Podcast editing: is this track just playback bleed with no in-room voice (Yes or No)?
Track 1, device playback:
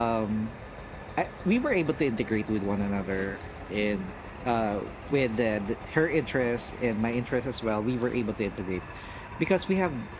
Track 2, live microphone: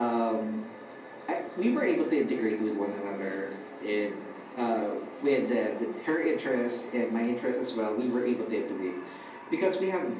Yes